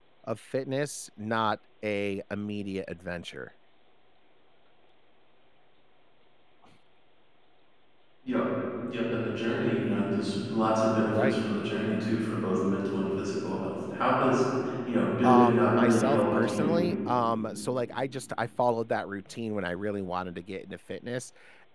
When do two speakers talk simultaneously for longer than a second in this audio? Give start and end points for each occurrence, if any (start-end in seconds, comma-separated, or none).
15.2-16.8